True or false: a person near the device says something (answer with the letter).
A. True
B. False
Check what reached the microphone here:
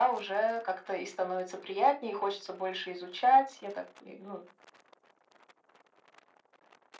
B